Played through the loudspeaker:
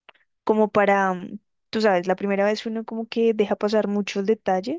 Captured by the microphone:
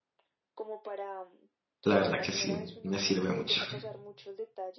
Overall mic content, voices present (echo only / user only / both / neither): both